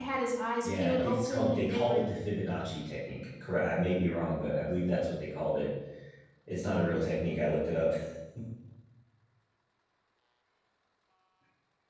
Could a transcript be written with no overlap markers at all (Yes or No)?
No